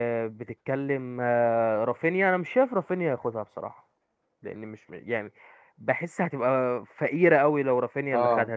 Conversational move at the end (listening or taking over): listening